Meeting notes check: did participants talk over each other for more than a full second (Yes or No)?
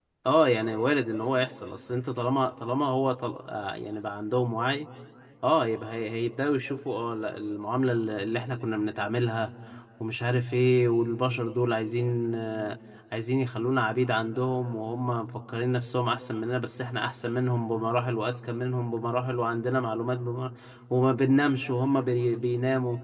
No